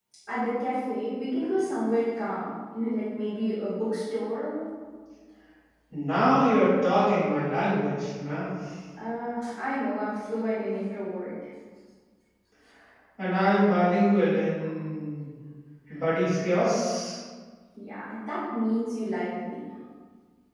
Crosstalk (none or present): none